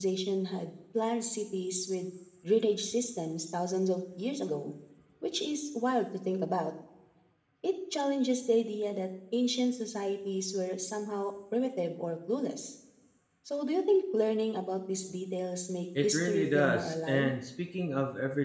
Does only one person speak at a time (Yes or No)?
No